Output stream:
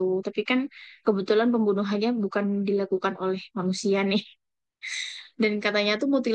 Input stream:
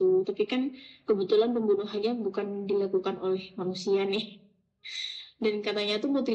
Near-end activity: none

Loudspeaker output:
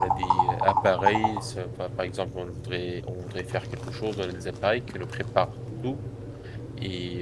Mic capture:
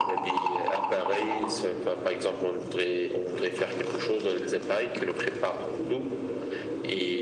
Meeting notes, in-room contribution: none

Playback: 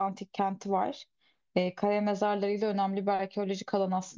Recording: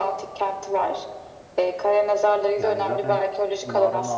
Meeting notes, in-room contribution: present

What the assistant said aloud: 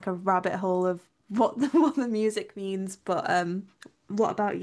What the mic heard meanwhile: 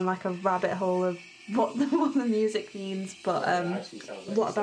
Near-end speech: present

